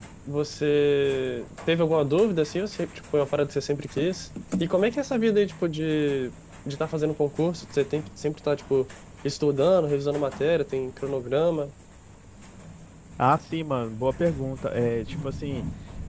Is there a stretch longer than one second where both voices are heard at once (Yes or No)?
No